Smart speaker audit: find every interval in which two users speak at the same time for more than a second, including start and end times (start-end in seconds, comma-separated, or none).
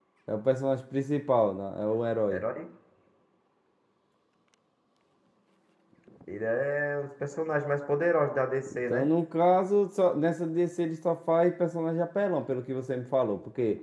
none